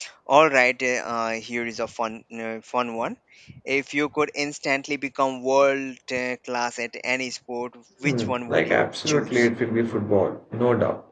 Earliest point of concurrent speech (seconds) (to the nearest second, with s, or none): 8 s